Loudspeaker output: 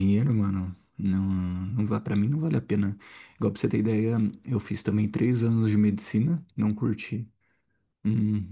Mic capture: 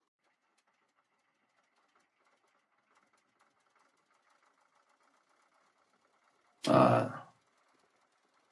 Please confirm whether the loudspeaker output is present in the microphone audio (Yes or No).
No